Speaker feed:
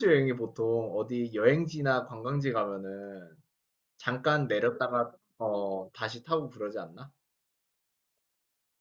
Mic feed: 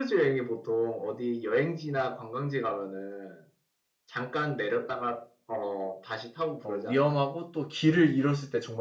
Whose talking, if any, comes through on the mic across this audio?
both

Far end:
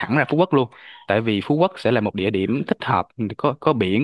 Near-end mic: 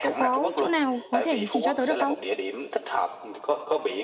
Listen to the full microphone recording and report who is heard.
both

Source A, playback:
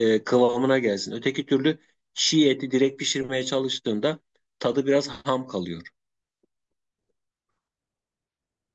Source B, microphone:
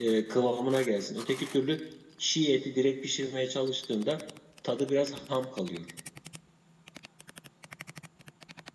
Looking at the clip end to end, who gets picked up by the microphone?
echo only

